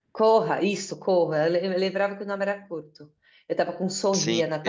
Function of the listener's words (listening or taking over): taking over